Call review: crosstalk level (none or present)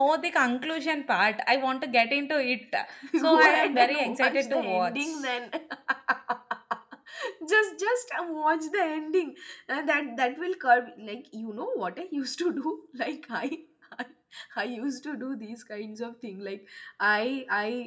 present